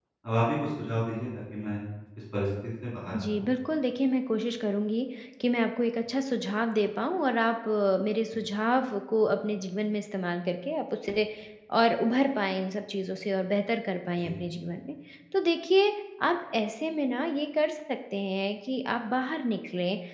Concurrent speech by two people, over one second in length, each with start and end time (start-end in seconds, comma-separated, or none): none